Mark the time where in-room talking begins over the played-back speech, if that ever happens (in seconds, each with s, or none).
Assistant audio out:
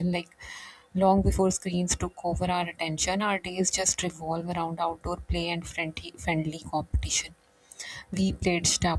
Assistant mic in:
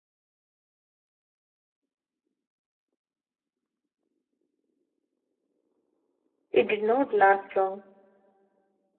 6.5 s